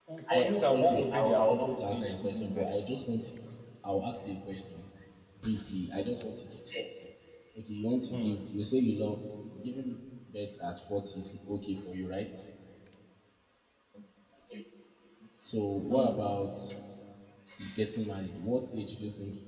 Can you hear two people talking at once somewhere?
Yes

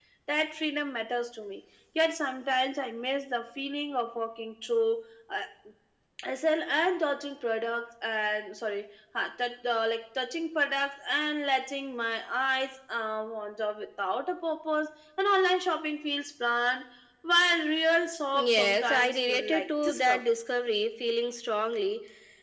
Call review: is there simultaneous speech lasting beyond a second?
Yes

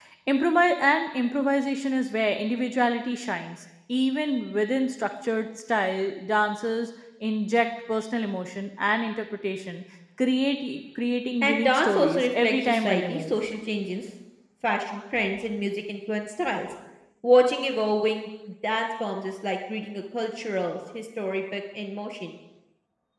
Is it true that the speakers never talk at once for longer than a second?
No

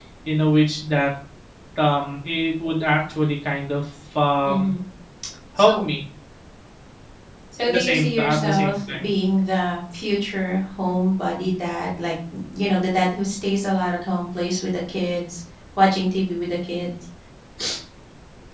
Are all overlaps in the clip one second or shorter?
No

